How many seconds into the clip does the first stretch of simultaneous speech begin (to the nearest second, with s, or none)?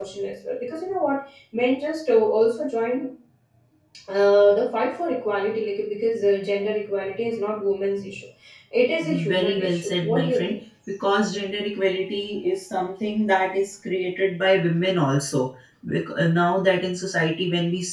9 s